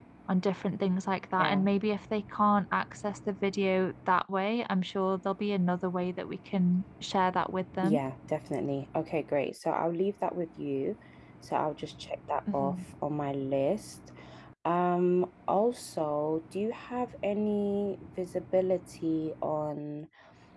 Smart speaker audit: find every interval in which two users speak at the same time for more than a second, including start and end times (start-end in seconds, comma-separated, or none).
none